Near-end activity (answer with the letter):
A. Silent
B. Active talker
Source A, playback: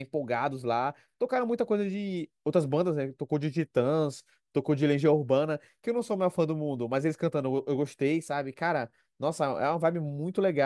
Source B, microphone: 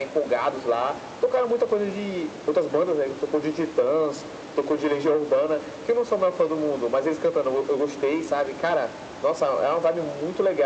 A